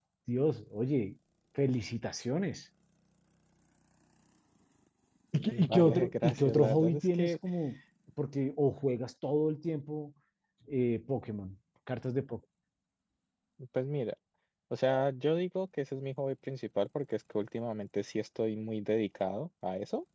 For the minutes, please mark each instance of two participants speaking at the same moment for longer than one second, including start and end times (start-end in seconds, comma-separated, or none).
5.5-7.3